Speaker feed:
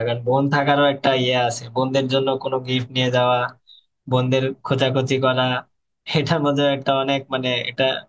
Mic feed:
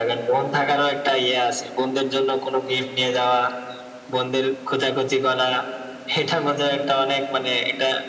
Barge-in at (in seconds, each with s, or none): none